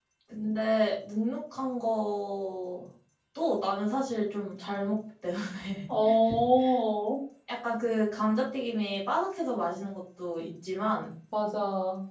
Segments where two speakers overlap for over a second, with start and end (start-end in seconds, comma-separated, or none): none